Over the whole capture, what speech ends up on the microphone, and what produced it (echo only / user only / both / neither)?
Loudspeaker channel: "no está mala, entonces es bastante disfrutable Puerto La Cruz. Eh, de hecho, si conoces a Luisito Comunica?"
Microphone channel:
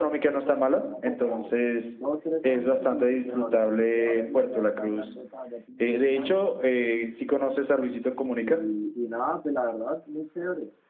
both